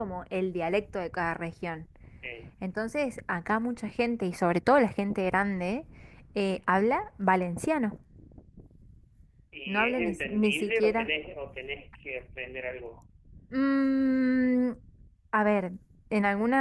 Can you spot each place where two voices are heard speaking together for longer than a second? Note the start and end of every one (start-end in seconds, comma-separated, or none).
9.7-11.1